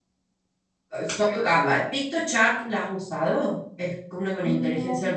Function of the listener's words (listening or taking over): listening